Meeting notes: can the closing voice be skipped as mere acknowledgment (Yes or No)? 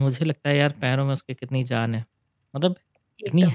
Yes